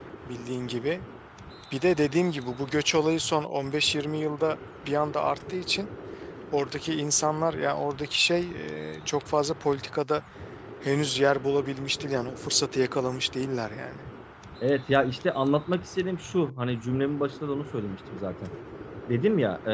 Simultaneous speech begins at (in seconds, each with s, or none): none